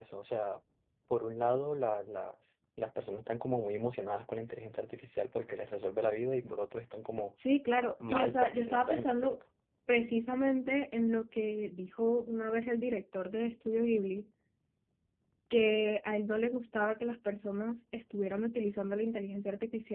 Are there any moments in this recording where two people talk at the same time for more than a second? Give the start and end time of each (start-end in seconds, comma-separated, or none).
8.1-9.4